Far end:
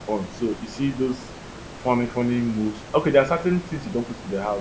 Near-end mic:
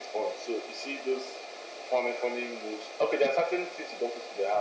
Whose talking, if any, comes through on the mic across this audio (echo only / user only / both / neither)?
echo only